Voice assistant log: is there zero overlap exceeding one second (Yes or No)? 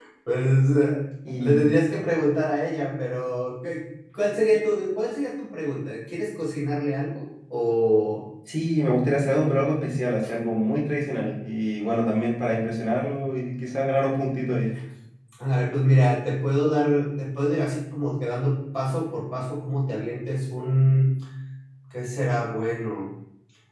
Yes